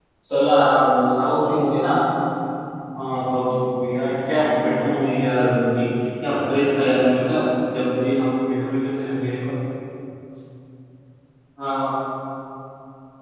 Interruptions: none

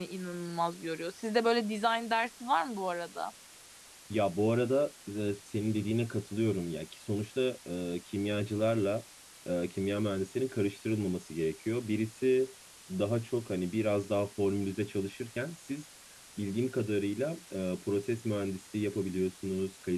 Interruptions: none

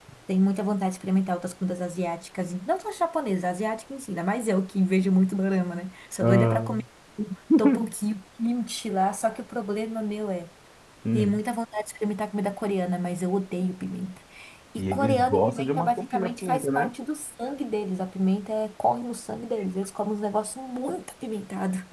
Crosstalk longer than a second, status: present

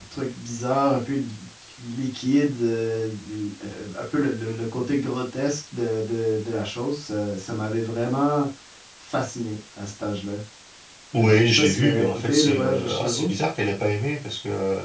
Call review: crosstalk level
present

